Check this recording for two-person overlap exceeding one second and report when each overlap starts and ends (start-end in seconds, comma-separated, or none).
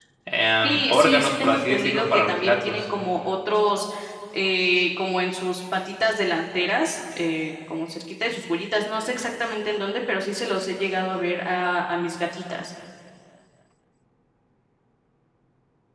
0.6-2.8